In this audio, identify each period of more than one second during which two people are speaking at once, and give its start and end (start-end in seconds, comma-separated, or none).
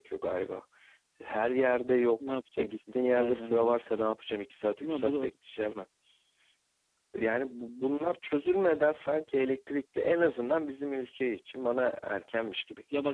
2.3-3.8